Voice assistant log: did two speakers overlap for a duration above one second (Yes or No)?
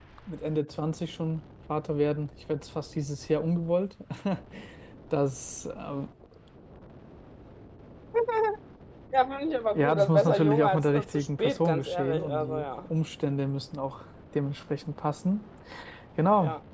Yes